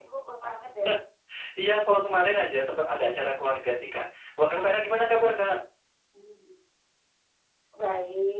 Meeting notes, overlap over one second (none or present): none